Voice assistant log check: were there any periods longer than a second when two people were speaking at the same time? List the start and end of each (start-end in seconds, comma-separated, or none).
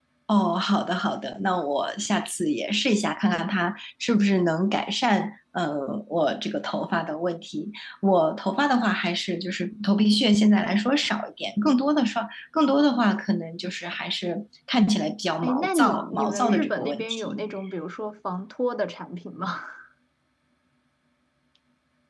15.4-17.4